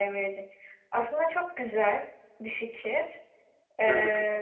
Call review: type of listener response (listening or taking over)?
listening